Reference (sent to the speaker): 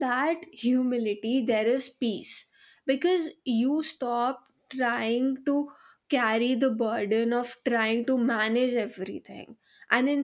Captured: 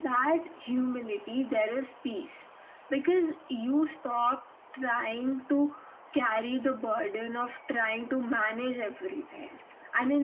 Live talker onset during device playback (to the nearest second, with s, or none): none